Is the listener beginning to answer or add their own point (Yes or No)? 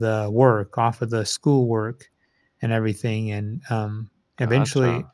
No